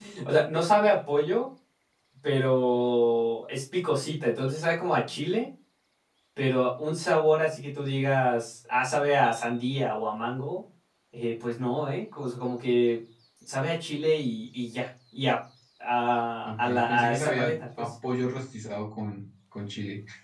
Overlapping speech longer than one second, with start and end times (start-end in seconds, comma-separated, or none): 16.4-17.9